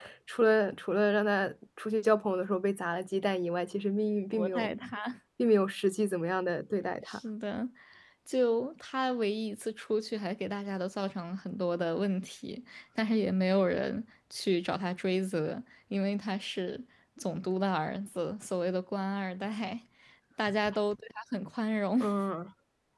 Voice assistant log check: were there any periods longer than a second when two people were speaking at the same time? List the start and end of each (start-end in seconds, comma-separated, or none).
none